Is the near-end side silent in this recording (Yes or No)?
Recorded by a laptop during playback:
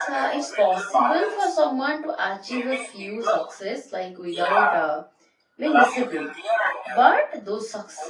No